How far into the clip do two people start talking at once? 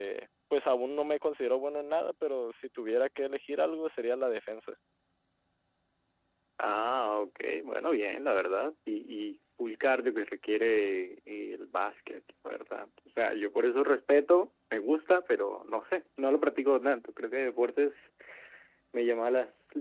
none

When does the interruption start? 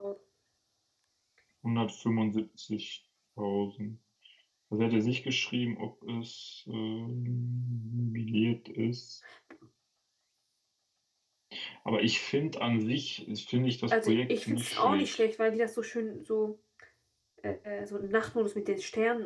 14 s

